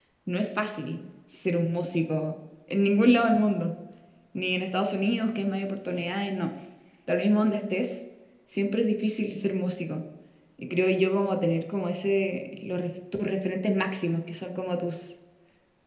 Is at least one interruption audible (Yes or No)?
No